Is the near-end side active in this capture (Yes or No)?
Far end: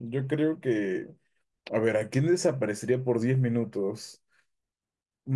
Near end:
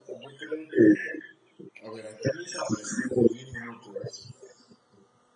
No